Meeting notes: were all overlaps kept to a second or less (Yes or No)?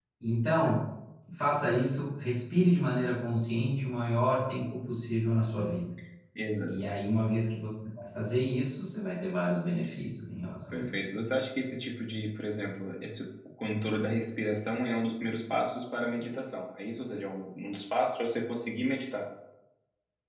Yes